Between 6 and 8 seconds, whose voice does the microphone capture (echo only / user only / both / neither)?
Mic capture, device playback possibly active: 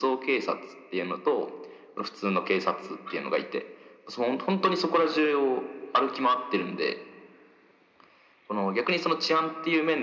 echo only